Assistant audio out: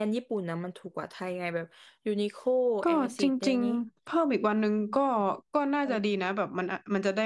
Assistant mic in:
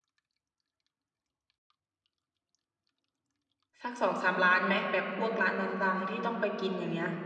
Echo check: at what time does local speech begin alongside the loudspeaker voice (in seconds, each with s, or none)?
3.8 s